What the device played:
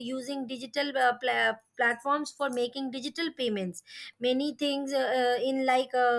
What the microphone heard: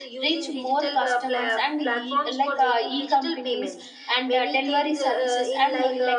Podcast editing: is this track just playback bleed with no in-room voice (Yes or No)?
No